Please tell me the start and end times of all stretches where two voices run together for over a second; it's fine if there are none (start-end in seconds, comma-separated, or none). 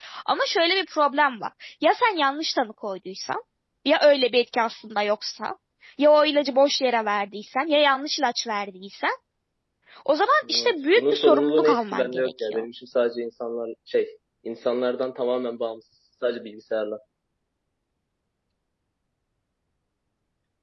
10.6-12.7